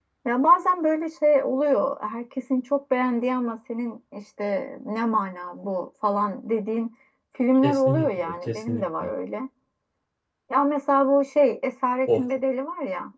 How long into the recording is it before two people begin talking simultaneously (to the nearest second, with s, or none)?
8 s